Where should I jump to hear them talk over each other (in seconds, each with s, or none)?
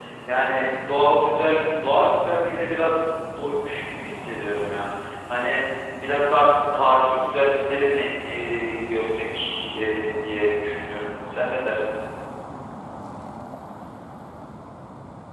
none